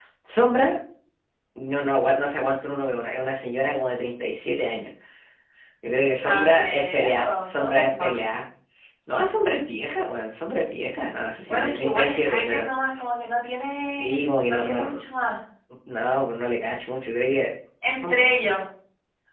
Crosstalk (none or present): present